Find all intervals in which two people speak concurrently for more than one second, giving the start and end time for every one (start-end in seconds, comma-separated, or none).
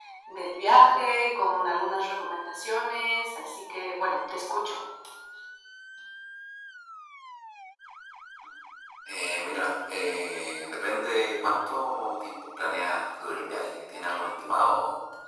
none